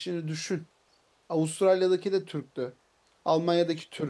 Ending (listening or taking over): listening